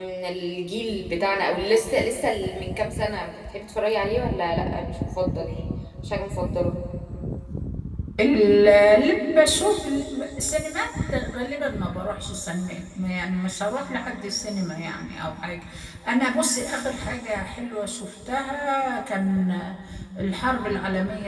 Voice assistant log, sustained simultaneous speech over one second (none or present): none